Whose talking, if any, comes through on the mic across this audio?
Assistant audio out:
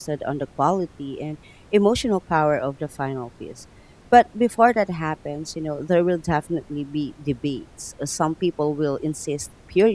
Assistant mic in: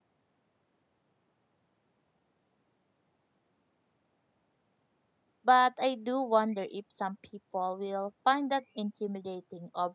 user only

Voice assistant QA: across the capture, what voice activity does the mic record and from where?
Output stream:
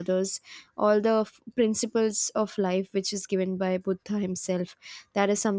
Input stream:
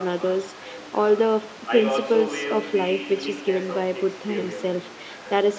both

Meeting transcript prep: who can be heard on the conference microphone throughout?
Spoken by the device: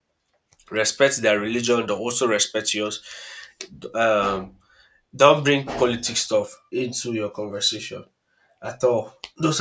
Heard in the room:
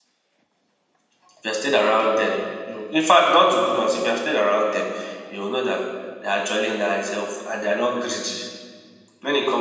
user only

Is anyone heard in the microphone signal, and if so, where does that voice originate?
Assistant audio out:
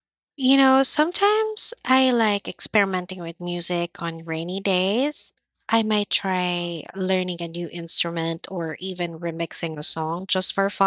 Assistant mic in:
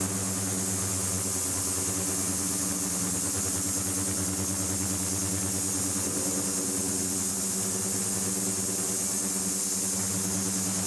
neither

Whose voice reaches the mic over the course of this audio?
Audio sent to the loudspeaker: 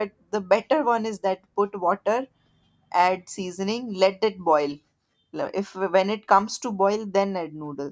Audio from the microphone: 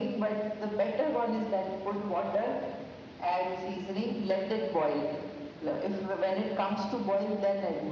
echo only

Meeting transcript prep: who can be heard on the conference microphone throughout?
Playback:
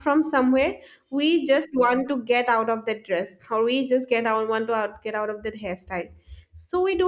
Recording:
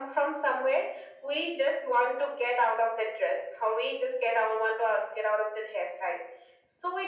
echo only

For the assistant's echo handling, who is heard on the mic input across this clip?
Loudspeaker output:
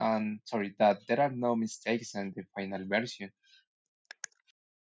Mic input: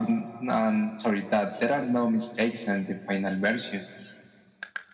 echo only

